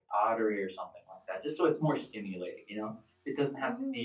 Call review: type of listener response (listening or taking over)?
listening